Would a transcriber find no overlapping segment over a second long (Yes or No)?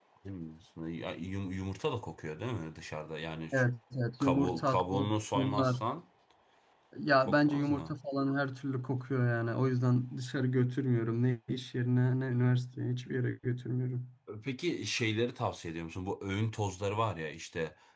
No